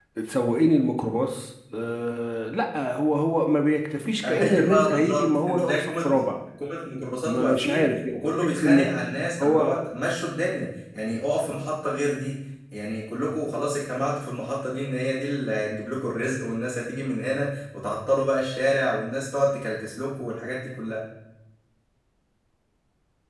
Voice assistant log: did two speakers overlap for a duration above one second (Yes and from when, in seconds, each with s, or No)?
Yes, from 4.3 s